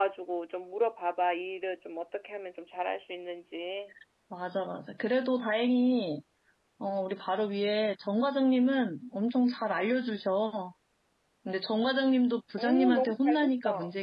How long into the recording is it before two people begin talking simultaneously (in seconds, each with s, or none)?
12.6 s